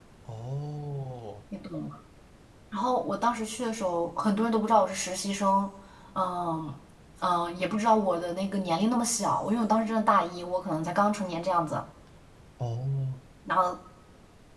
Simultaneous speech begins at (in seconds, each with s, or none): none